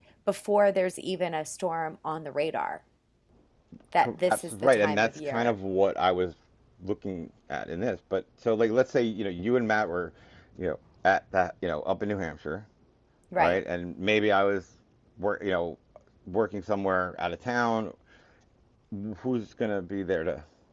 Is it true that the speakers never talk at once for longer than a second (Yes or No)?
No